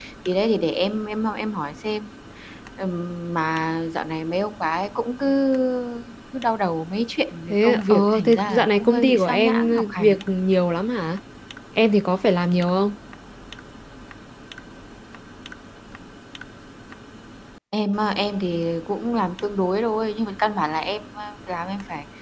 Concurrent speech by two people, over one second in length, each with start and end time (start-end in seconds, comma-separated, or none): 7.5-10.2